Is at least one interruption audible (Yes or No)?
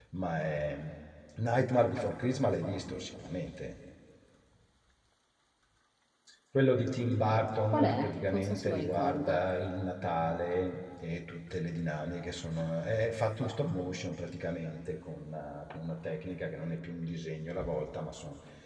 Yes